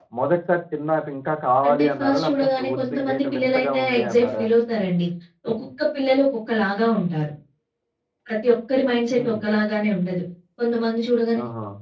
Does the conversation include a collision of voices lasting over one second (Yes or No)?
Yes